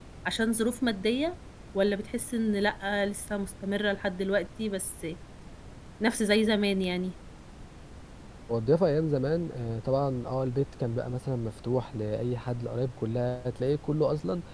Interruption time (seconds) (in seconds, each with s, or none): none